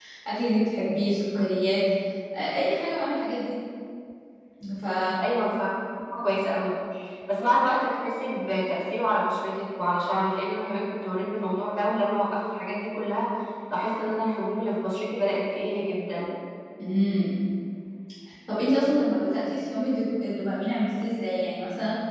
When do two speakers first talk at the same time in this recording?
none

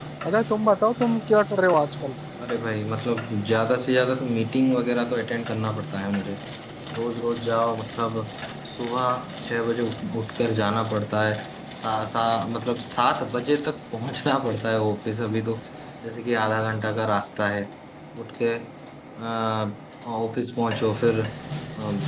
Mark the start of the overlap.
none

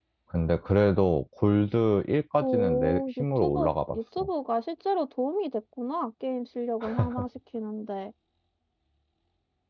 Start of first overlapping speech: 2 s

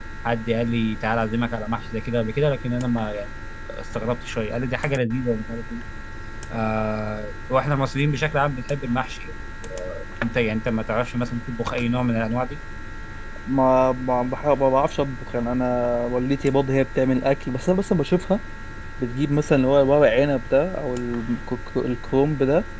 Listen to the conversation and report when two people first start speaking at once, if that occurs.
none

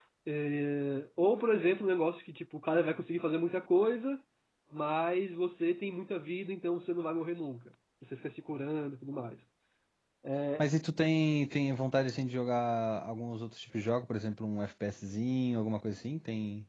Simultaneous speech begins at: none

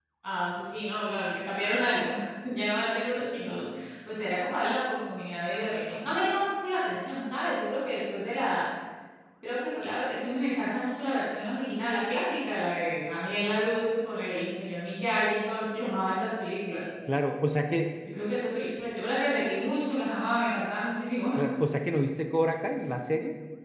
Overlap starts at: none

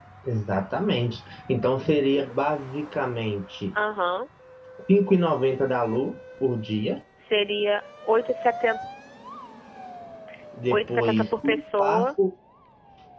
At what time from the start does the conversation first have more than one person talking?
11 s

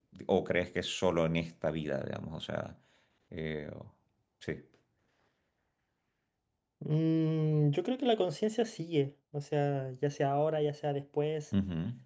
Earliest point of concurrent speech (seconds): none

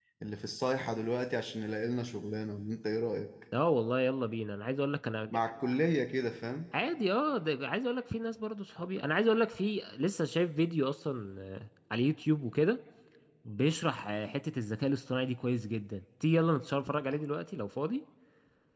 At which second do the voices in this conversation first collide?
none

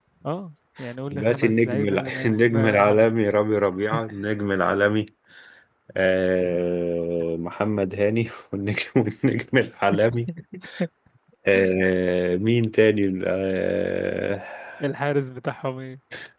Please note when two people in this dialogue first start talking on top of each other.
1 s

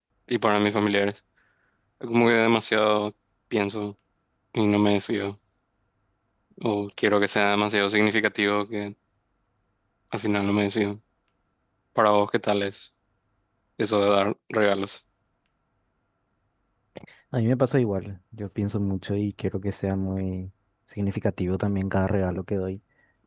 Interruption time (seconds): none

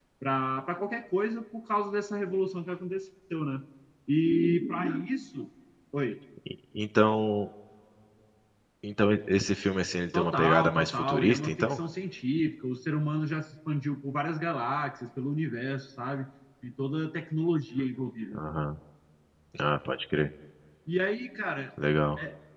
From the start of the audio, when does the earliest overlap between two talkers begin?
10 s

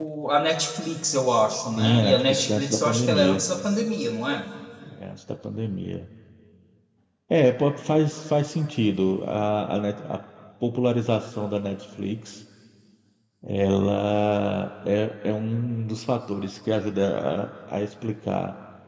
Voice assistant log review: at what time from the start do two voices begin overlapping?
2 s

